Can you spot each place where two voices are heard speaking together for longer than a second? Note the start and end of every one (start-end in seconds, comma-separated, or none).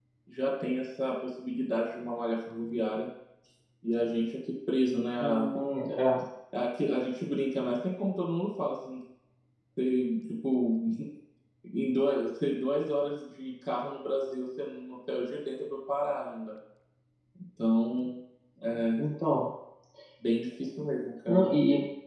none